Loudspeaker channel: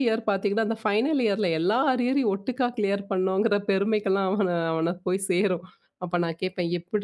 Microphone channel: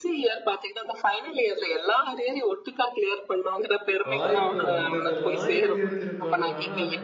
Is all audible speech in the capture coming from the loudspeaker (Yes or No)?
No